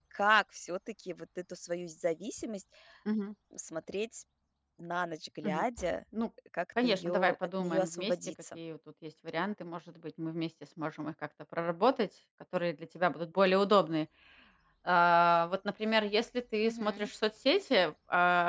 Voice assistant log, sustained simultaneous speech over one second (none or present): present